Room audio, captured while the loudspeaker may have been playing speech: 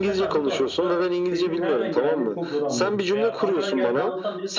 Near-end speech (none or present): present